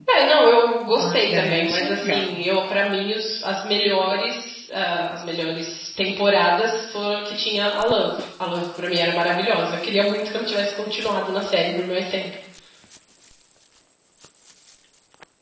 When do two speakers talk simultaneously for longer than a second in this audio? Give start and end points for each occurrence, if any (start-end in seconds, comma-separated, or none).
1.0-2.4